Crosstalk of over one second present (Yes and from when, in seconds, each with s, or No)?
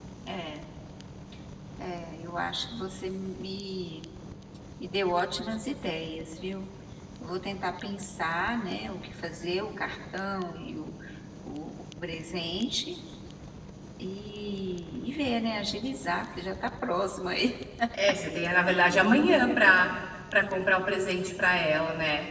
No